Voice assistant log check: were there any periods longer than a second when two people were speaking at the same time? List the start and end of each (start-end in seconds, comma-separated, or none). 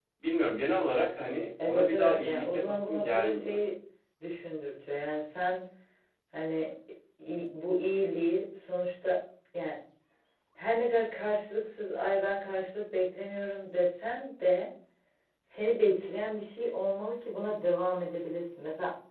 1.6-3.6